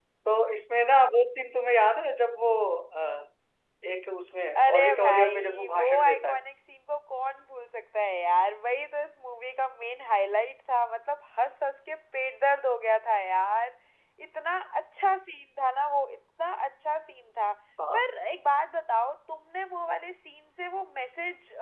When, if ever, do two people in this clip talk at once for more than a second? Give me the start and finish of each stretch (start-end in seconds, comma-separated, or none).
4.6-6.4